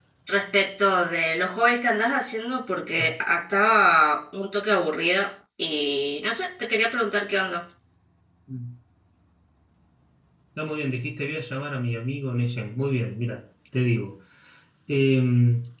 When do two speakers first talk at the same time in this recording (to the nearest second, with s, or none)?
none